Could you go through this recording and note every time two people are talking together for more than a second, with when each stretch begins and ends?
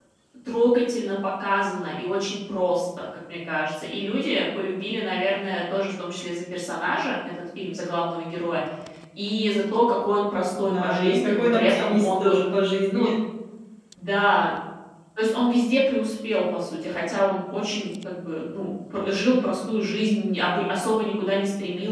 10.6-12.4

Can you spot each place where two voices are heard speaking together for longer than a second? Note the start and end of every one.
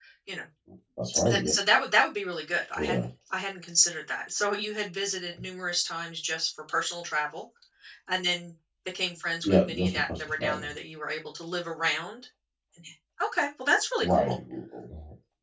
9.4-10.7

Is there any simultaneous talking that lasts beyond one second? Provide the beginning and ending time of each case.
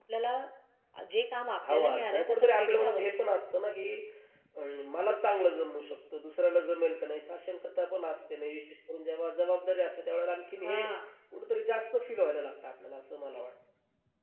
1.7-3.2

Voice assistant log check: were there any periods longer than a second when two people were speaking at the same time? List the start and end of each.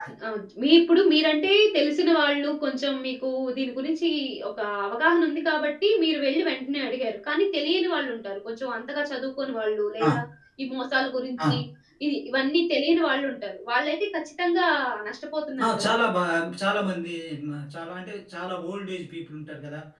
none

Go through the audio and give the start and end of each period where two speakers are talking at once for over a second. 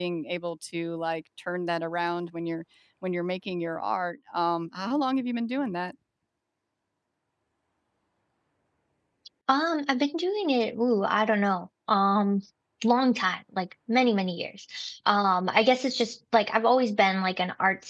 none

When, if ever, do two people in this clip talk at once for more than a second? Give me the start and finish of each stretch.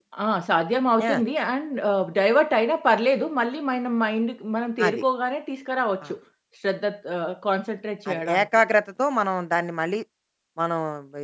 none

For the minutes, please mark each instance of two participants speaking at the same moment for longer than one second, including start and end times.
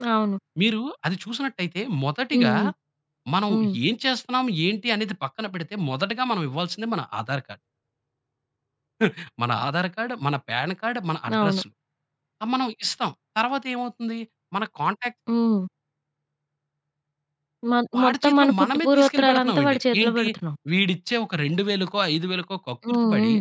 17.9-20.2

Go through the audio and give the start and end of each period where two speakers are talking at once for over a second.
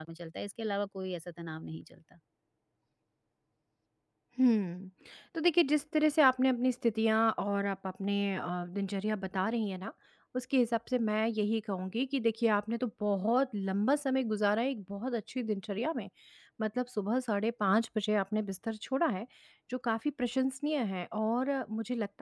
none

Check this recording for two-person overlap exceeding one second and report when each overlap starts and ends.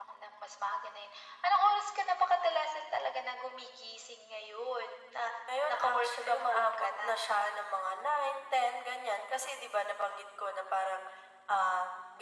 5.7-7.1

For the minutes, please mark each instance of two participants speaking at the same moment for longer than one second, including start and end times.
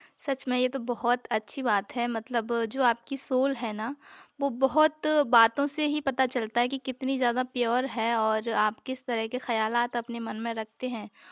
none

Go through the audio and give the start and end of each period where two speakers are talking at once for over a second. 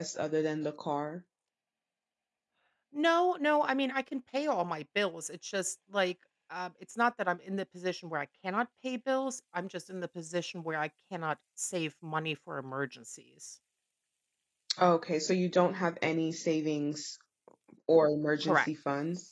none

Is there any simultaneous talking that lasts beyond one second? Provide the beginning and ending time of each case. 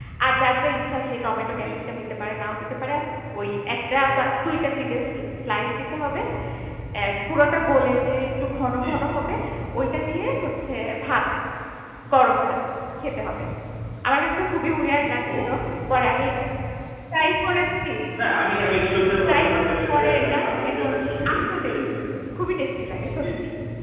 19.3-20.9

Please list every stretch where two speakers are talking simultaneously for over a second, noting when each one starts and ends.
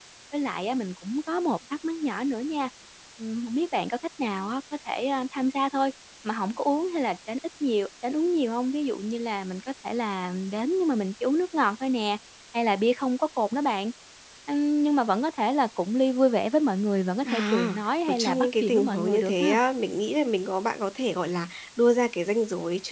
17.2-19.6

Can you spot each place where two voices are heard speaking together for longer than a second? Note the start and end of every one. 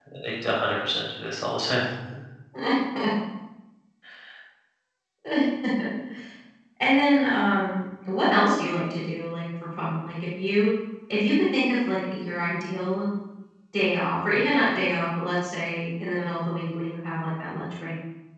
none

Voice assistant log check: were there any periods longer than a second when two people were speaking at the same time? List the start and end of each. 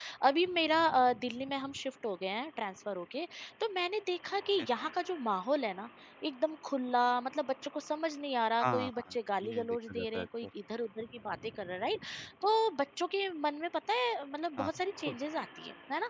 8.6-10.5

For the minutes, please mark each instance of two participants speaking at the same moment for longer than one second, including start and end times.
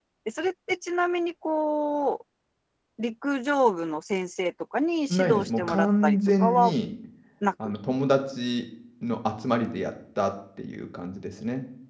5.3-6.7

